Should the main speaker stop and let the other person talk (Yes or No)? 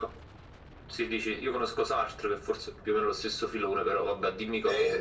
Yes